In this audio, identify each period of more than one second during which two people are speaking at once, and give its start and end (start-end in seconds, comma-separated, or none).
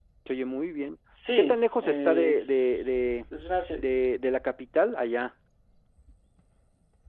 1.4-3.0